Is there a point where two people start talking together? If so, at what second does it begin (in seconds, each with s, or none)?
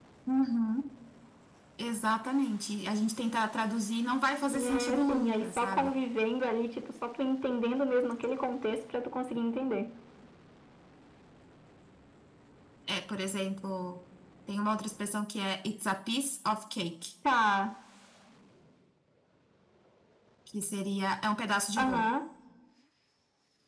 4.5 s